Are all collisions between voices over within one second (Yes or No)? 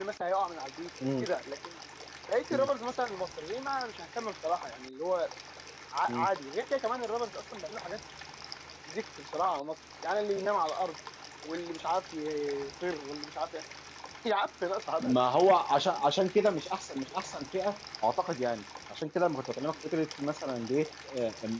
Yes